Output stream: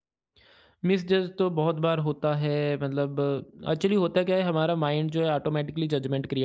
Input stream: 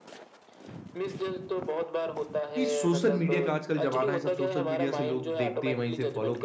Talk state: both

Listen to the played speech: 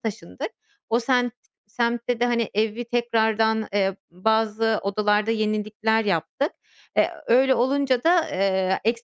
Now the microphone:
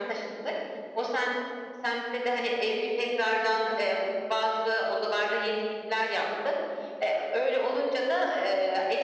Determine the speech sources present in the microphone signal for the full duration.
echo only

